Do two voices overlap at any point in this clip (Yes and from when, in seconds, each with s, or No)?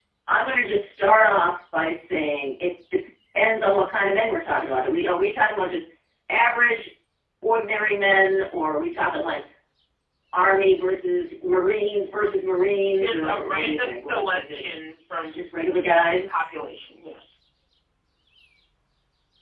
Yes, from 13.0 s